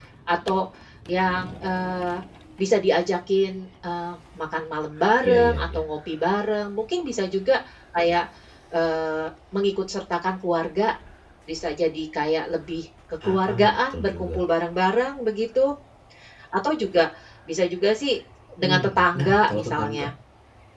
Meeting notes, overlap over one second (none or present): present